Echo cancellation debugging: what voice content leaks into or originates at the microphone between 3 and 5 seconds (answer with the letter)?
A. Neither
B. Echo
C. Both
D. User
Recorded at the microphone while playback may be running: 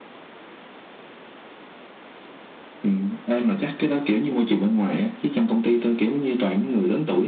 B